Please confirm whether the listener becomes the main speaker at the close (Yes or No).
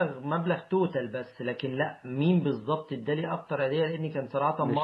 No